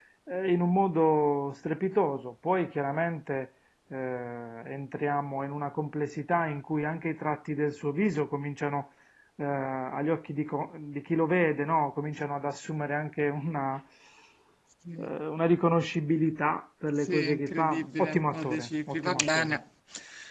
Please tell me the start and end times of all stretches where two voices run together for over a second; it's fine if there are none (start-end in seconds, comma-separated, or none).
16.9-19.6